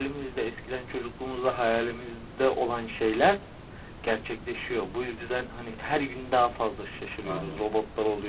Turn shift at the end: No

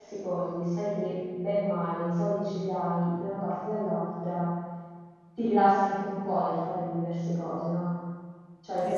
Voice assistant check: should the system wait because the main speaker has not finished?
No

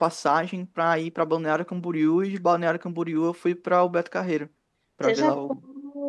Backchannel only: No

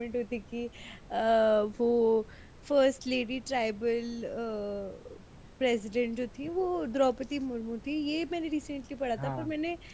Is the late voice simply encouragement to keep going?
Yes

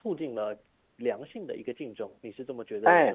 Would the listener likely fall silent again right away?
No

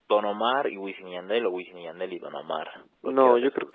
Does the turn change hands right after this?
Yes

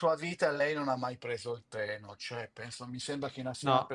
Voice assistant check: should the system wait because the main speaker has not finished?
Yes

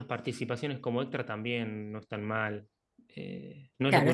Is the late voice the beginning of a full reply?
Yes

